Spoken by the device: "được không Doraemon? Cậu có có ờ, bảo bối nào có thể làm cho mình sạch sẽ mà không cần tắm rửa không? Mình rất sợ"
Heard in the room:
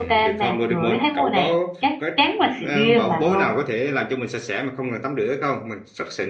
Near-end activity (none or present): present